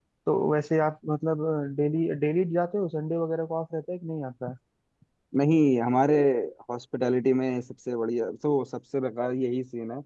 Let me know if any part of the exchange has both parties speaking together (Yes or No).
No